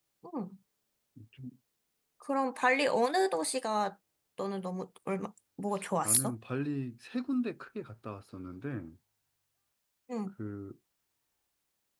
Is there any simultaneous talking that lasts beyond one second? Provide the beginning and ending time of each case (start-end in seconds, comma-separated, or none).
none